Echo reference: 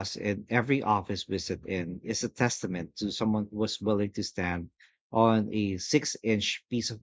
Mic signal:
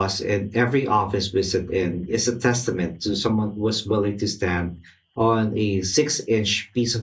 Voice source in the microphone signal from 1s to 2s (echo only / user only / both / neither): echo only